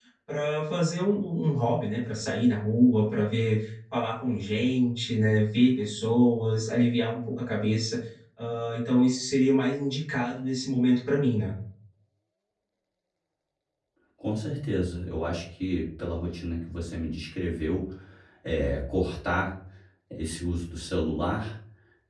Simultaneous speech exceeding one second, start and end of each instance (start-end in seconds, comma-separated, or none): none